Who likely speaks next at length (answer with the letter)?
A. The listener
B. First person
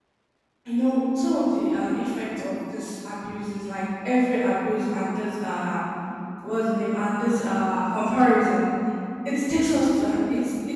B